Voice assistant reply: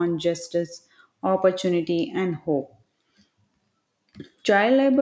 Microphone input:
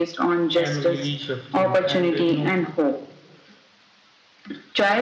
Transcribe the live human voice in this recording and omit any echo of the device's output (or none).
can really shift things and uh, you know